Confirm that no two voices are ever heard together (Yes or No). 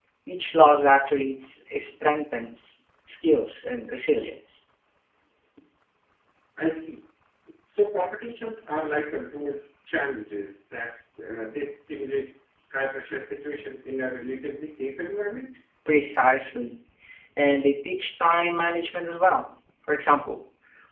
Yes